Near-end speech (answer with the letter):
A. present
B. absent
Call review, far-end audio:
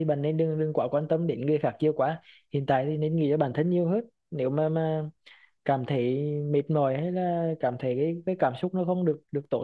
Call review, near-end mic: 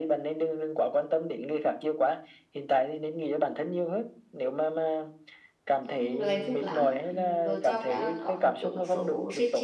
A